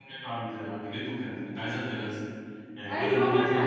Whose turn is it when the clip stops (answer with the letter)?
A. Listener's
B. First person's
A